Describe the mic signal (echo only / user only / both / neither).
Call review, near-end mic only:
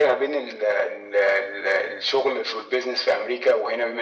echo only